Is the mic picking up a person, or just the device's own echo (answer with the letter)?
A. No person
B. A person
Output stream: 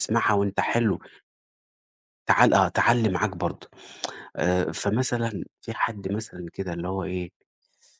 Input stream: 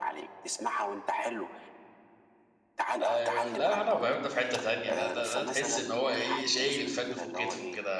B